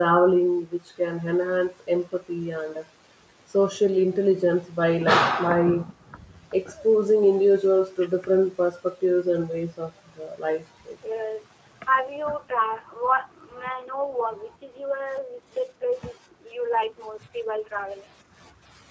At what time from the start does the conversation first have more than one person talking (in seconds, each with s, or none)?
none